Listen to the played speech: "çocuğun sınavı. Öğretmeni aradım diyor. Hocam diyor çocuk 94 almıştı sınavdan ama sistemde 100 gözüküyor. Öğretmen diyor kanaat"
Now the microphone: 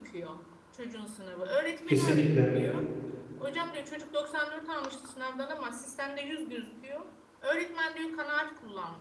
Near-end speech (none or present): present